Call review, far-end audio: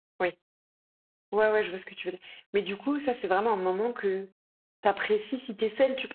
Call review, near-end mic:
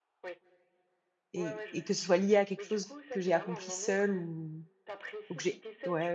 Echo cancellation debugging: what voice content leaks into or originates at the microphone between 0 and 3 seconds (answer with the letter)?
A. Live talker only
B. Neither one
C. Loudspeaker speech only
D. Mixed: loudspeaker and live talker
D